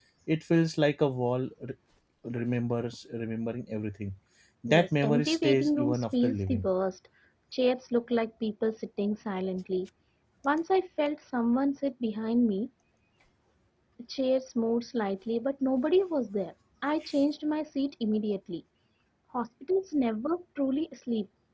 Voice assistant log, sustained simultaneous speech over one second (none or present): present